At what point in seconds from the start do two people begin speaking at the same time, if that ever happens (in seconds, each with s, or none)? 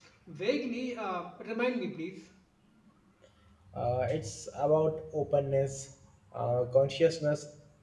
none